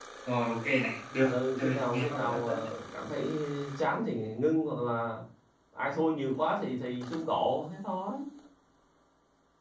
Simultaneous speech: Yes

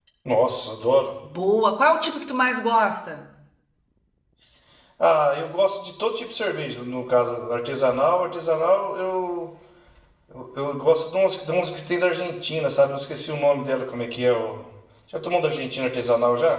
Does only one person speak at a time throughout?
Yes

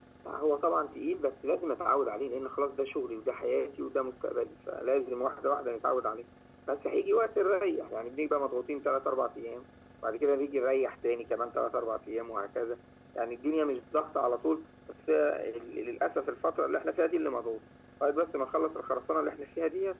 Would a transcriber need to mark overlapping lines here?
No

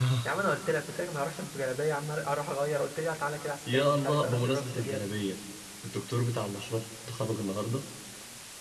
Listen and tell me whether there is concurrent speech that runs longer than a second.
Yes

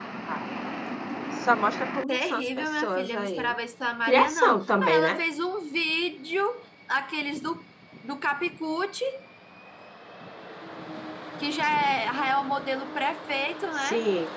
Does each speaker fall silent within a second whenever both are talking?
No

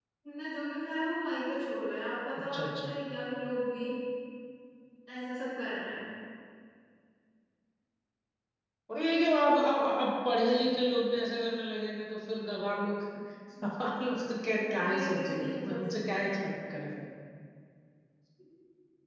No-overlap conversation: No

